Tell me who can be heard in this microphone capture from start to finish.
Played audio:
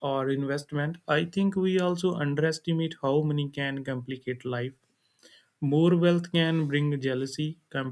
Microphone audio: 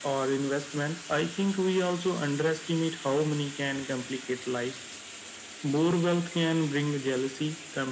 echo only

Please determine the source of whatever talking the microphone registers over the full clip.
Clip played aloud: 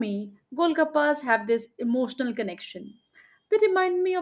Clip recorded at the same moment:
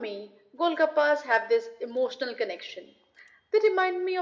echo only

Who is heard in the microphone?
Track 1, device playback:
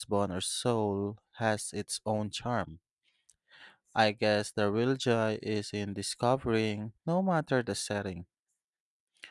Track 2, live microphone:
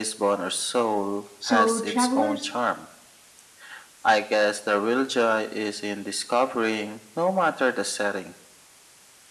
both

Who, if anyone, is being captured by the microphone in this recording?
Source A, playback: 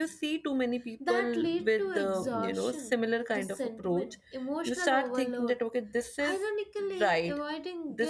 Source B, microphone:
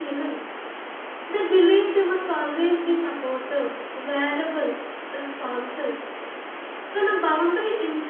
user only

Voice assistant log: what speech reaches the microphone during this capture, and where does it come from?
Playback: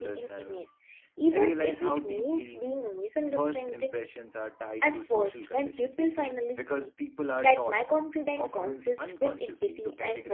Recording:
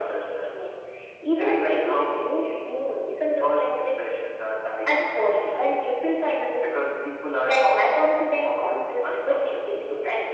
echo only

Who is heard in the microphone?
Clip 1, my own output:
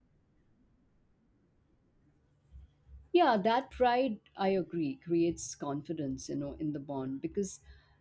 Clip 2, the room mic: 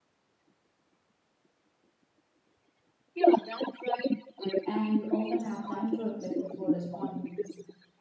both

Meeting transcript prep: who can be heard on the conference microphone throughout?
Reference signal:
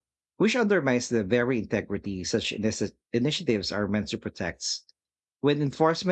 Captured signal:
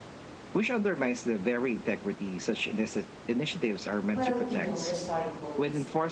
both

